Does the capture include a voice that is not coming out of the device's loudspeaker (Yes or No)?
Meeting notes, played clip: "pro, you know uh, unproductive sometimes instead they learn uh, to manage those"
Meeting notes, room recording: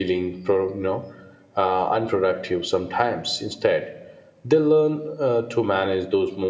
No